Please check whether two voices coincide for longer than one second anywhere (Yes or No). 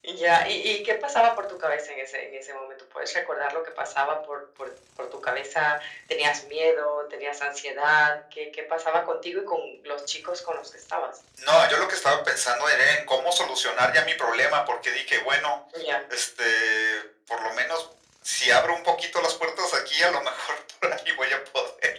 No